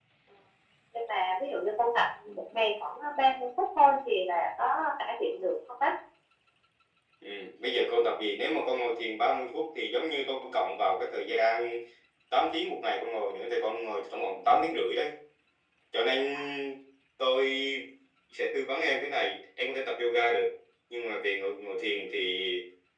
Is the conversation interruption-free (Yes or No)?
Yes